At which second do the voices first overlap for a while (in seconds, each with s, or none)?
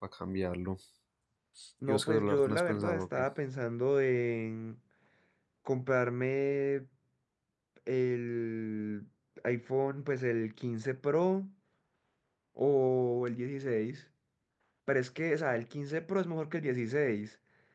1.9 s